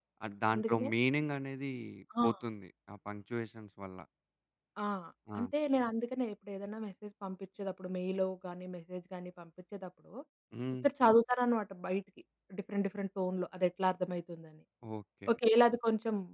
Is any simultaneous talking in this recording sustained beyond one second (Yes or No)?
No